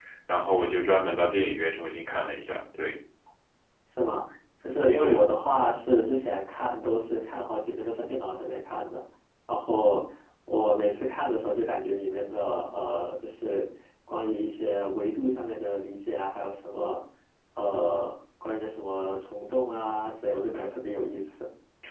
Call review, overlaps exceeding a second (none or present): none